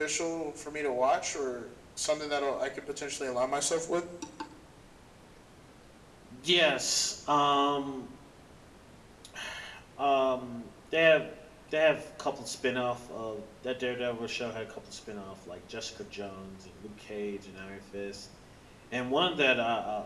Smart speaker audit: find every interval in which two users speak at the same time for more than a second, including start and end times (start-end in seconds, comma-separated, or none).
none